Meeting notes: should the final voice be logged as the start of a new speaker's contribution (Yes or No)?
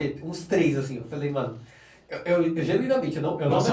Yes